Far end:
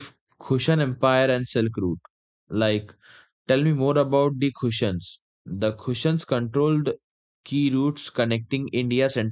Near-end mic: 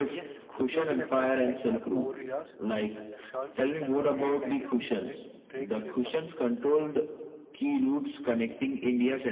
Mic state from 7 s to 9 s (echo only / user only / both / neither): echo only